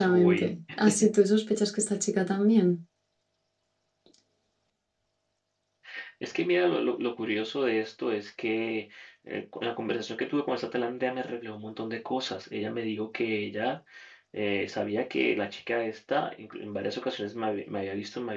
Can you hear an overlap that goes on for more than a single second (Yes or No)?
No